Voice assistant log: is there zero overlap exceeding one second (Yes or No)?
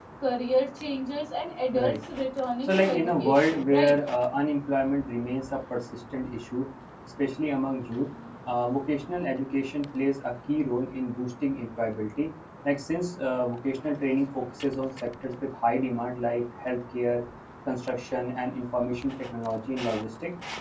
No